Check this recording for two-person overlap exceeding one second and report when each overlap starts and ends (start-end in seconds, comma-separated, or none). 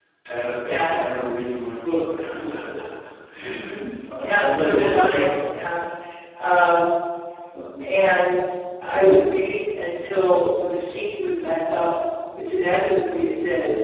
4.2-5.5